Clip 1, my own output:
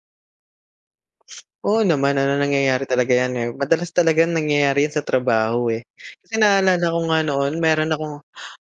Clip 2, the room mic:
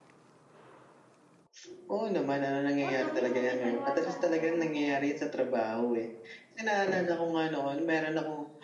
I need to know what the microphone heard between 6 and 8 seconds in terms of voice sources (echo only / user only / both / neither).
echo only